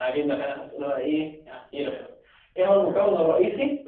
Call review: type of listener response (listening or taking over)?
listening